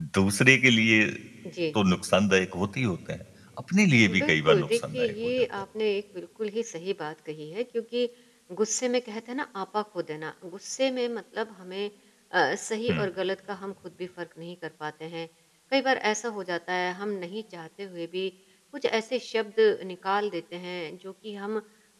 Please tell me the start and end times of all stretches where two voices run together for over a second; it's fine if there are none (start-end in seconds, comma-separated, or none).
4.1-5.4